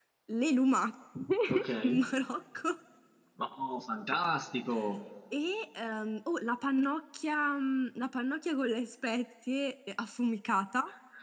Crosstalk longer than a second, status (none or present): none